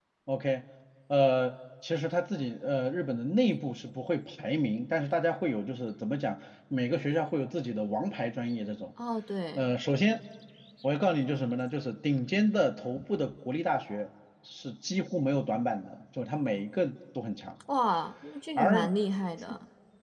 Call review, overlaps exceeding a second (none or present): none